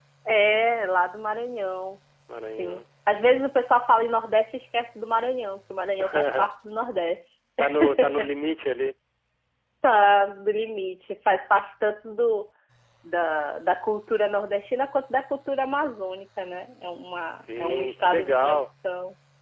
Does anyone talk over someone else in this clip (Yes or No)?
Yes